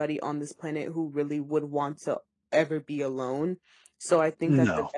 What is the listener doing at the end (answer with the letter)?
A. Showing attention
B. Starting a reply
A